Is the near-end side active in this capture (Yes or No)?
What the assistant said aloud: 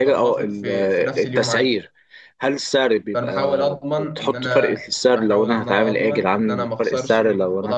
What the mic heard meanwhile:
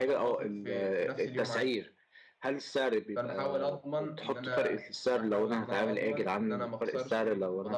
No